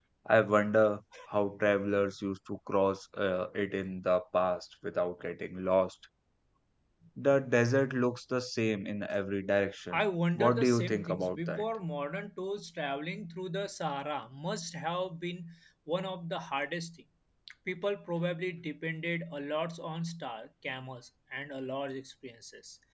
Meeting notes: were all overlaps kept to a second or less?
No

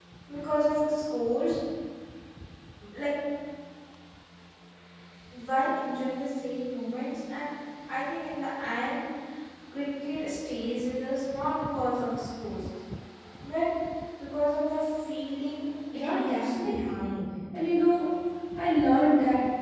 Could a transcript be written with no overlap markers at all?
No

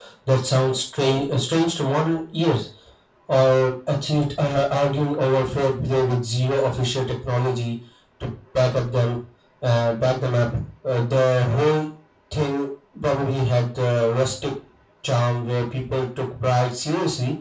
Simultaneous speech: No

